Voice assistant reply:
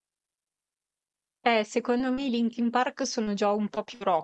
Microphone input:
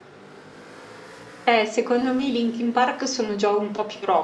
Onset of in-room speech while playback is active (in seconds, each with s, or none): none